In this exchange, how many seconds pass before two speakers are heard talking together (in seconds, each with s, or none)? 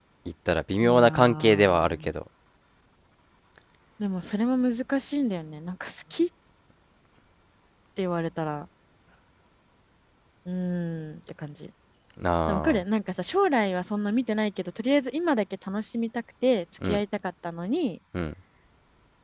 0.8 s